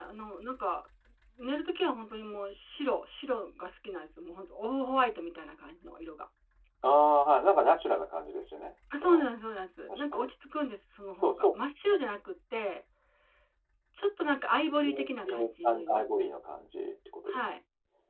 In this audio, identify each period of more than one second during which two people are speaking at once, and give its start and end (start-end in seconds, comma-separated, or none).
14.8-16.0